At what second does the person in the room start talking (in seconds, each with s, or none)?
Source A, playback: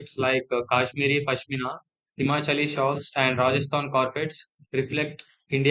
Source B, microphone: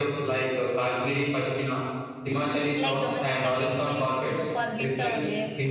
2.8 s